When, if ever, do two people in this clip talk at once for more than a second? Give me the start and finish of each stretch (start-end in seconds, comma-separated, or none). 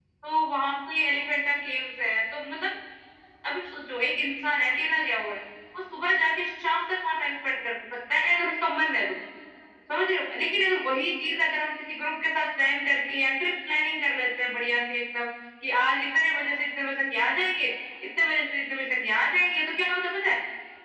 none